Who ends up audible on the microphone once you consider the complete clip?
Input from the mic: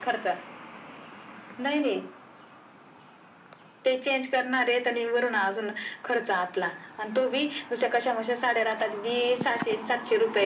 echo only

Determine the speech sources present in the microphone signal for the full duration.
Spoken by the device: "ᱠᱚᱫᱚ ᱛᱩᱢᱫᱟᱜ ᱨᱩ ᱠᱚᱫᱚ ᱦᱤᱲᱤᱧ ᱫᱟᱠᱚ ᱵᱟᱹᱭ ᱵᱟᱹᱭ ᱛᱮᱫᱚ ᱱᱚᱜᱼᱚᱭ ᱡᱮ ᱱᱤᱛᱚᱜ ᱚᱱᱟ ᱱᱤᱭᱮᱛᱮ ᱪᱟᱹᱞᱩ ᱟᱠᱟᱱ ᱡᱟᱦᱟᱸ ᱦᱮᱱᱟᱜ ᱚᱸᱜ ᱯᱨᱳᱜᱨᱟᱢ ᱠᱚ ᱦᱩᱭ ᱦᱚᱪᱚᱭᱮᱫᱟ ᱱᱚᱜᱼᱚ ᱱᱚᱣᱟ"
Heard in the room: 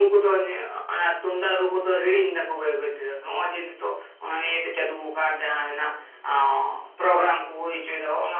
echo only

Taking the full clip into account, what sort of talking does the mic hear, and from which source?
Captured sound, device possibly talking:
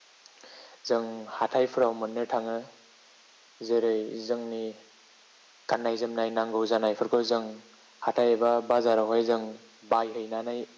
user only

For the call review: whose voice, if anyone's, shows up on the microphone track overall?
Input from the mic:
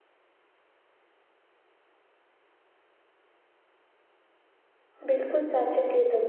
user only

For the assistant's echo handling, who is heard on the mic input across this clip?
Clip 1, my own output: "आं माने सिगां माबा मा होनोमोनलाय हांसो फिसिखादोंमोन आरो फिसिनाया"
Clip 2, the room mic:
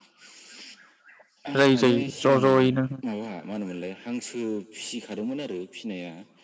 both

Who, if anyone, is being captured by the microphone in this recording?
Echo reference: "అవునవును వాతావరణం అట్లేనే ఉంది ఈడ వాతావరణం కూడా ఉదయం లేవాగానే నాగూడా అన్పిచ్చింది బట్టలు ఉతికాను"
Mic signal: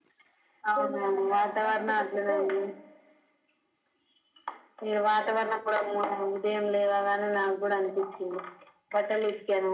both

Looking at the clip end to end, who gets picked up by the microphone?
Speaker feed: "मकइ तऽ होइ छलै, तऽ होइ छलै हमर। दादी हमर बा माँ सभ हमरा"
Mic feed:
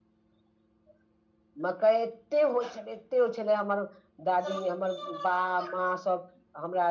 echo only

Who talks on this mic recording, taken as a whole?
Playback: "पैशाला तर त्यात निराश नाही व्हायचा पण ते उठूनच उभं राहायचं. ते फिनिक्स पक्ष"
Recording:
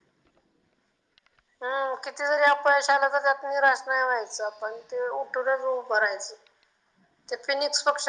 echo only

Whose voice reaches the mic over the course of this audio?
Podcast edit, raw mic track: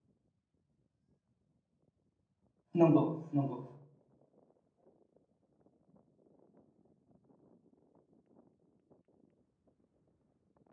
user only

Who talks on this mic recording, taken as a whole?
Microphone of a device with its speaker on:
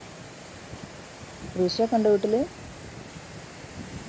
user only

